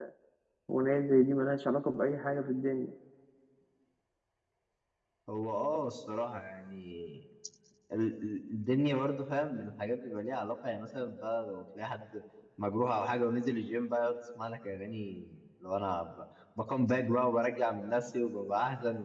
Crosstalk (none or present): none